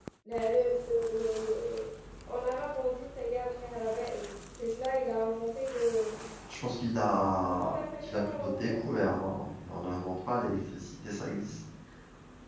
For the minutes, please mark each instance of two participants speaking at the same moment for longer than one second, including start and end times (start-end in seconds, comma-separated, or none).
7.5-9.0